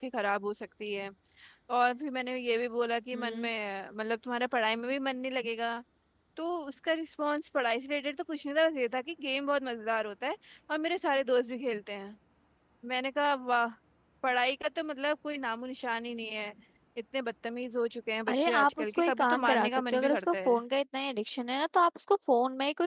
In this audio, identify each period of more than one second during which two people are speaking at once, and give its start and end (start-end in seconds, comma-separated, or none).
18.3-20.5